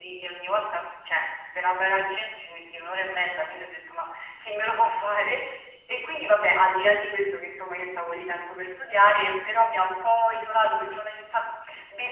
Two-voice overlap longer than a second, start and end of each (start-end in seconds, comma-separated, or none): none